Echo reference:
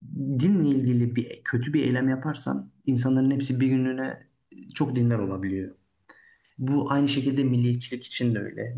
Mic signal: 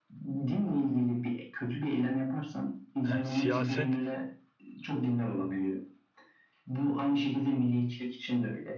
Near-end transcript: e, siyaset

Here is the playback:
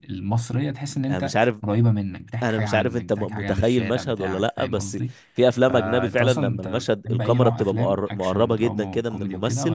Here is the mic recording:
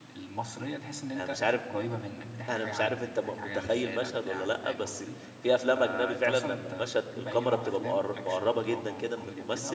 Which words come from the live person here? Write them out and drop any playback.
none

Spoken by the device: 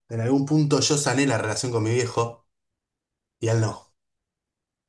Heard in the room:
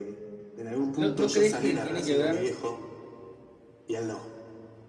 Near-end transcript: ¿No, no crees que tiene que ver?

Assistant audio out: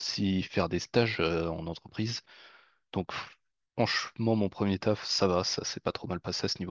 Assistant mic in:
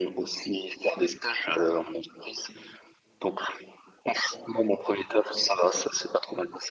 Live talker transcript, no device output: none

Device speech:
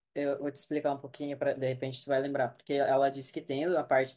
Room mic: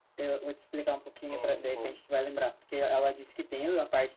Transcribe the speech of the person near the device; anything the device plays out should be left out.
sim, sim,

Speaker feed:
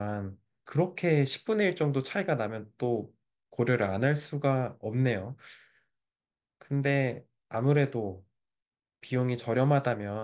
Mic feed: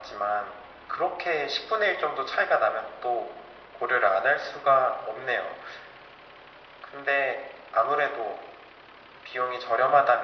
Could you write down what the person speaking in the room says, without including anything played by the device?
none

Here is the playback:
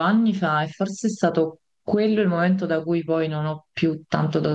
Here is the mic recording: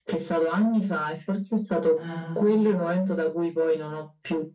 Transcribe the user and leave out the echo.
Ah,

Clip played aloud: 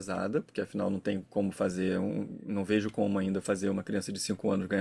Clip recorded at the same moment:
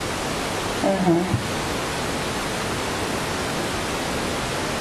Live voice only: uhum.

